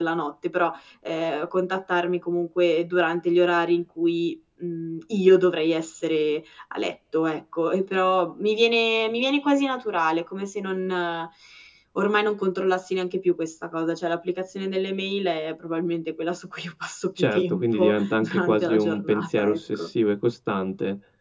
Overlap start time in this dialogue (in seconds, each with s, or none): 17.2 s